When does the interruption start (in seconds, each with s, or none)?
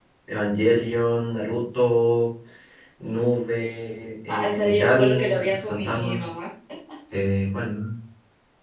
4.3 s